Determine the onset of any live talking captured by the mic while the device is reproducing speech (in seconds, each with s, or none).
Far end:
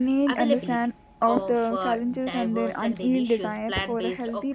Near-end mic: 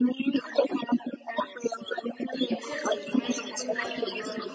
2.4 s